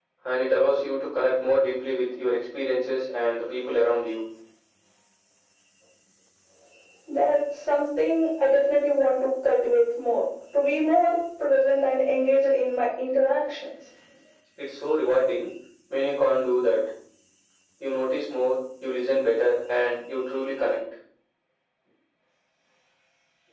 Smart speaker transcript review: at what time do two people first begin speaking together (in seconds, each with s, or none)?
none